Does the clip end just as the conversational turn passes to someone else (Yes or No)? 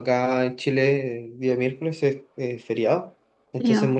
No